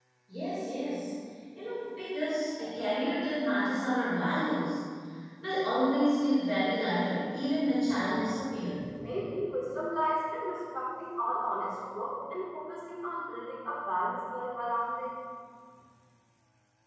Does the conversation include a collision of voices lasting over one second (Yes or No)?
No